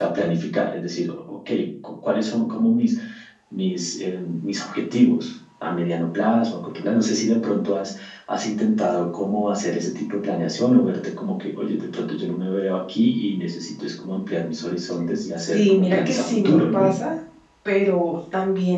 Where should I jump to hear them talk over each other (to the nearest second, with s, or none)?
16 s